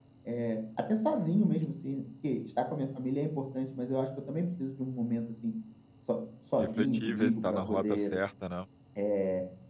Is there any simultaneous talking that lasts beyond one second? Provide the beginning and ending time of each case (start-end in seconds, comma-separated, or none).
6.6-8.1